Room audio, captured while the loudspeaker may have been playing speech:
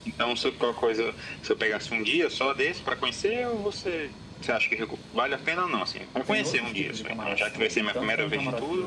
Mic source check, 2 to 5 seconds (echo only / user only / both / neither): echo only